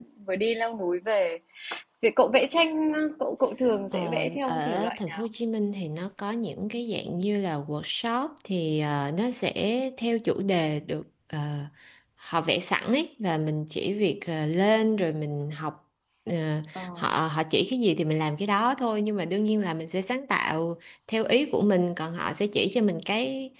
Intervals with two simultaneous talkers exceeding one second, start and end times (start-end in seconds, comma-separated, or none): 3.9-5.3